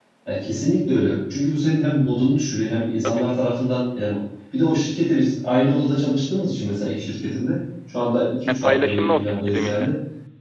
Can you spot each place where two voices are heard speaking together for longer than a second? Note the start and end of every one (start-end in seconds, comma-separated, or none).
8.5-9.9